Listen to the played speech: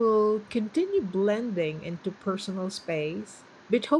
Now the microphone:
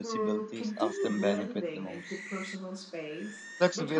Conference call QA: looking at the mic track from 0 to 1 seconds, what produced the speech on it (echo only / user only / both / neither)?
both